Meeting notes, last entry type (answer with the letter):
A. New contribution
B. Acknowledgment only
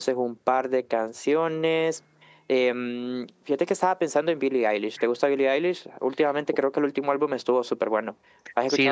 A